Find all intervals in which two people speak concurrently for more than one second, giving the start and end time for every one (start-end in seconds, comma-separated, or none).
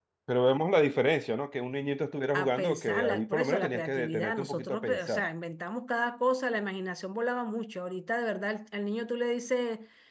2.3-5.3